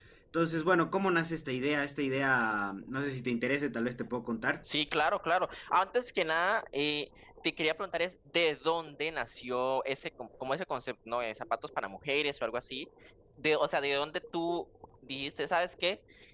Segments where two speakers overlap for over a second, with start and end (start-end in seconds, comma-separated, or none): none